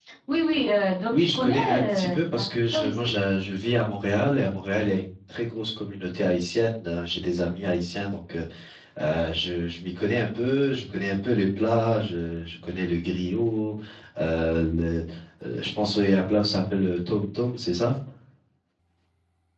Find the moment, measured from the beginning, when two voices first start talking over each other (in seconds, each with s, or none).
1.1 s